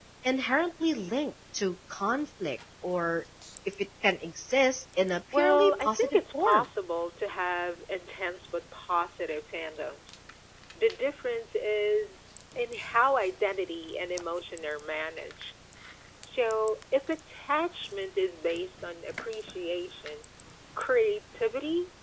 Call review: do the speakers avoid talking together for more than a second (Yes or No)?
No